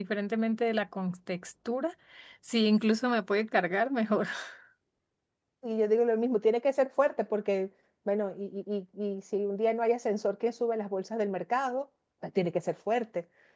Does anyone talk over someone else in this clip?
No

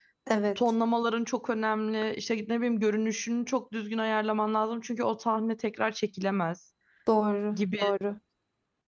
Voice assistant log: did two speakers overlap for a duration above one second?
No

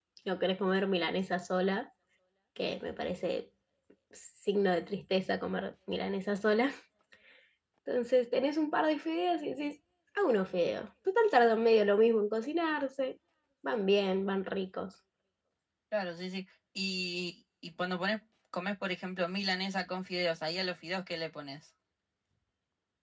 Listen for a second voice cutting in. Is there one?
No

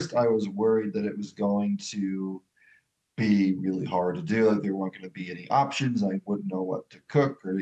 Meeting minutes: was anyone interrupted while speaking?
No

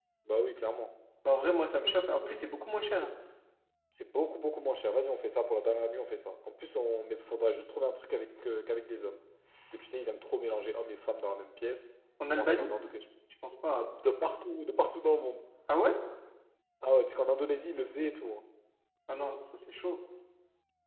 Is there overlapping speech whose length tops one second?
No

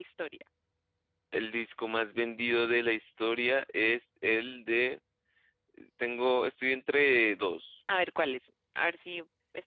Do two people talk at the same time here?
No

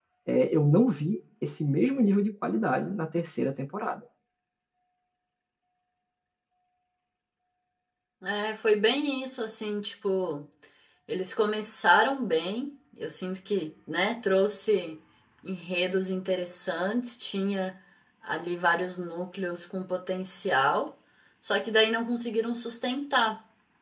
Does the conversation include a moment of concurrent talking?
No

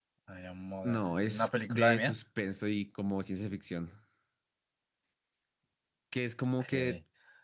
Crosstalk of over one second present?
Yes, from 0.8 s

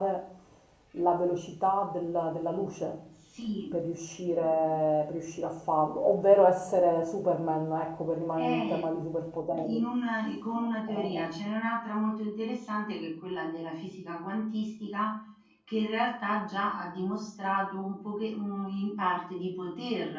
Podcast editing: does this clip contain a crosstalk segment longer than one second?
No

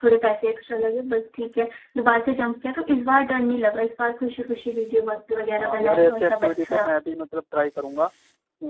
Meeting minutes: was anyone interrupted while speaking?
Yes, from 5.6 s

